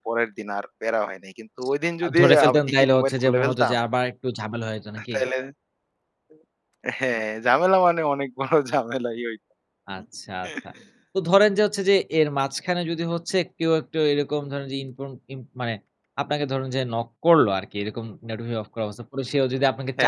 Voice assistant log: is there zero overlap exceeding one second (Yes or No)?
No